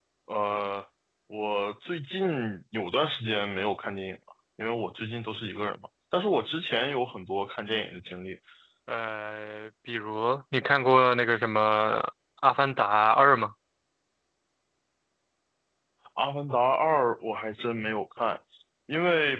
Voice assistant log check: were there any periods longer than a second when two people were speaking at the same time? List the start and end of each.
none

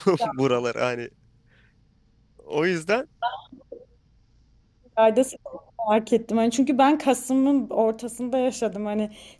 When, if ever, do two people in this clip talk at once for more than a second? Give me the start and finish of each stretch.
none

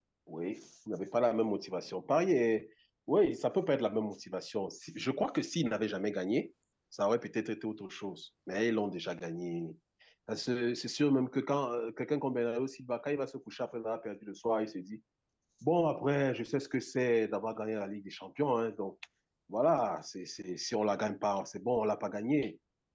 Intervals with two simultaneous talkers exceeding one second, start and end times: none

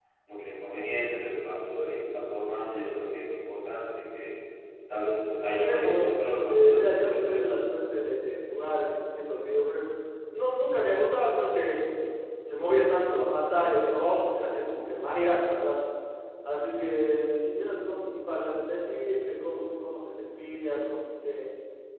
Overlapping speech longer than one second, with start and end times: 5.5-7.6

